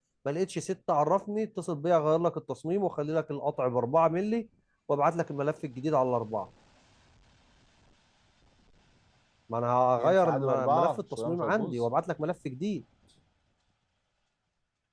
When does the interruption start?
10.0 s

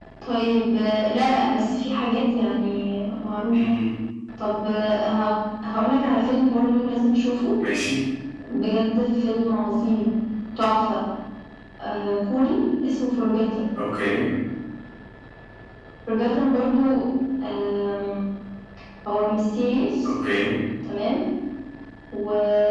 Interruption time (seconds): none

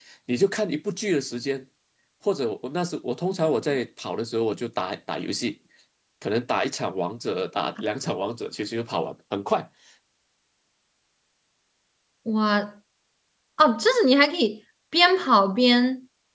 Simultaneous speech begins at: none

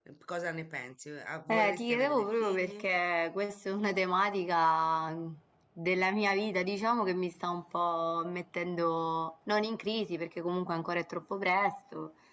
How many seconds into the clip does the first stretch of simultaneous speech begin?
1.5 s

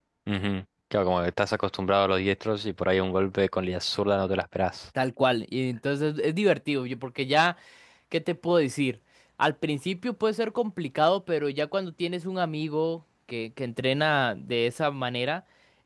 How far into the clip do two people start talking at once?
none

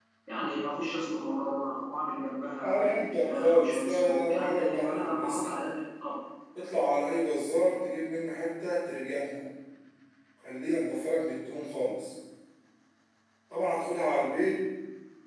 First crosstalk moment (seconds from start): 2.6 s

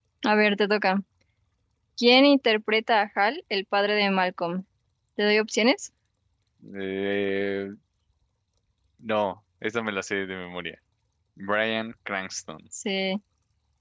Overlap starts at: none

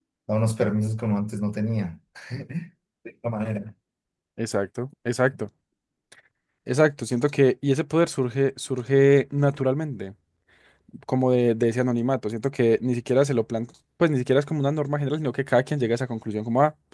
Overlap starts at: none

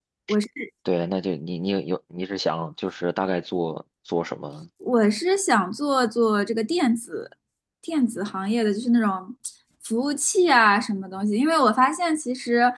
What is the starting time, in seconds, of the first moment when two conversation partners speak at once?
none

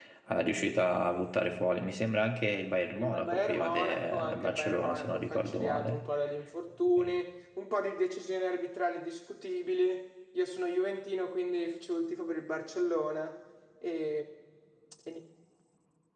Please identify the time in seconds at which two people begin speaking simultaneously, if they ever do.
3.0 s

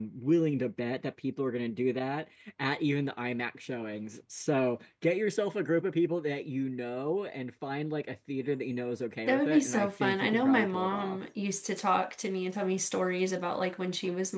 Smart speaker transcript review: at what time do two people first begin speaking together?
9.3 s

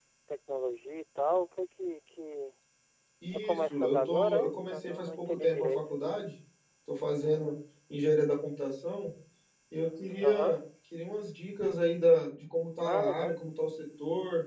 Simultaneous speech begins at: 3.3 s

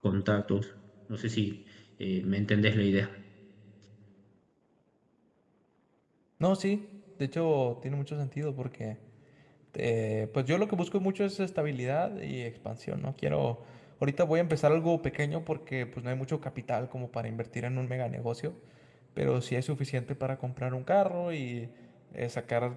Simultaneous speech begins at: none

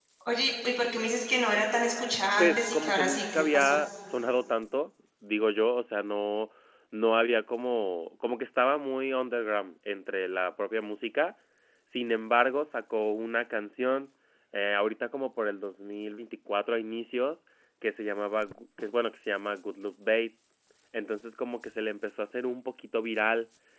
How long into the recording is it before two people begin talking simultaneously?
2.4 s

